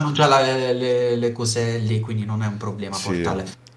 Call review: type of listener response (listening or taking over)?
listening